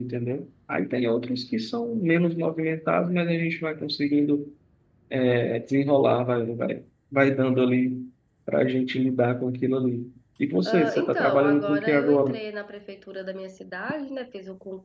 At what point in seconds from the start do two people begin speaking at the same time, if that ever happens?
10.7 s

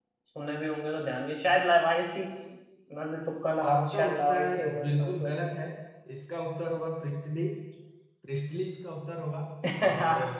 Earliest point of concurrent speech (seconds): 3.6 s

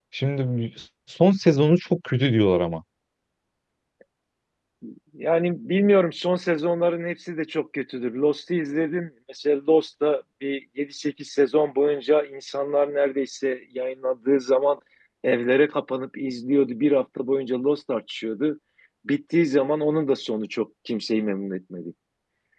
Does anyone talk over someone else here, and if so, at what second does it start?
none

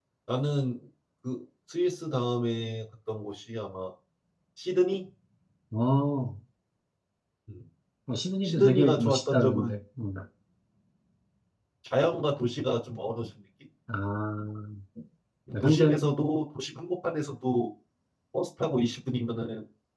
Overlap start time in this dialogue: 8.4 s

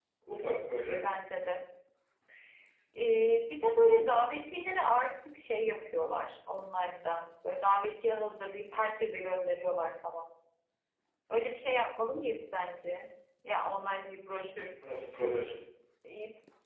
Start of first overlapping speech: none

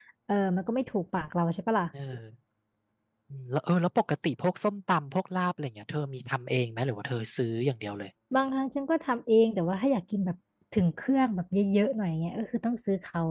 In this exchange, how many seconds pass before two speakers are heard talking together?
none

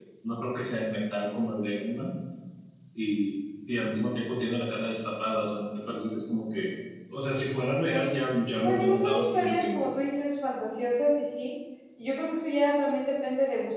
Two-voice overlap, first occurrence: 8.6 s

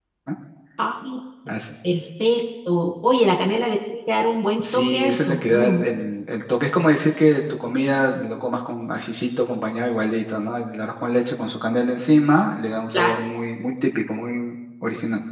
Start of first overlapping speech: 4.6 s

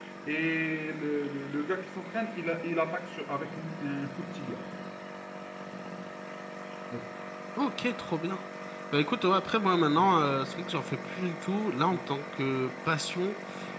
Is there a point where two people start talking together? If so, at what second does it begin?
none

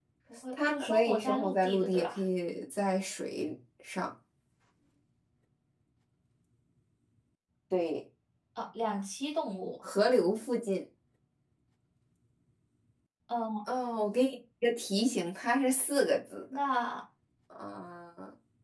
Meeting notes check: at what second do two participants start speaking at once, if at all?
0.5 s

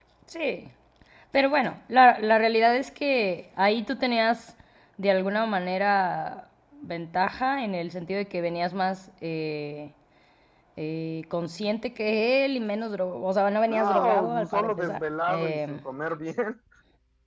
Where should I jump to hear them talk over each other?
13.7 s

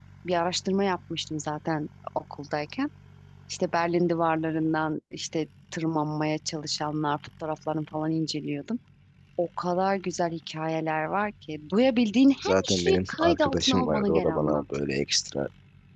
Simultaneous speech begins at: 12.4 s

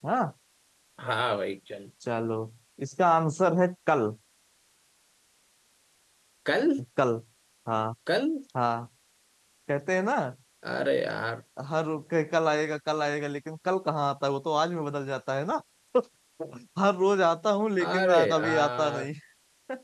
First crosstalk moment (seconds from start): 17.8 s

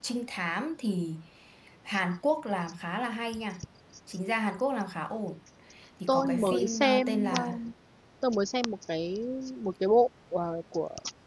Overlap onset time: 6.1 s

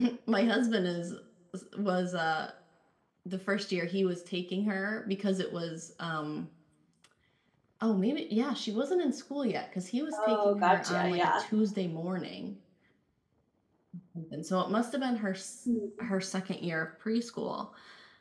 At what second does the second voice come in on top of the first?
10.1 s

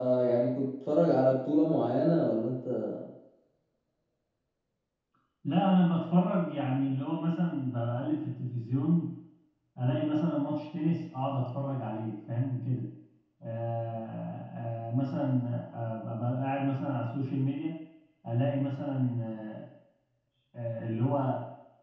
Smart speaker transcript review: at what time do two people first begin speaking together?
none

